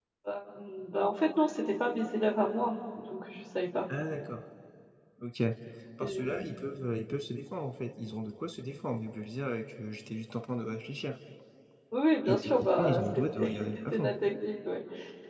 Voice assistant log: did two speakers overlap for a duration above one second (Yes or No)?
Yes